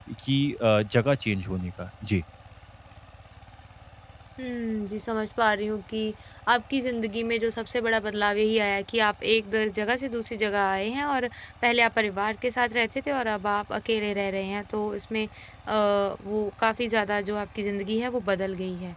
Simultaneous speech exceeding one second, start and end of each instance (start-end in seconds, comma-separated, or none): none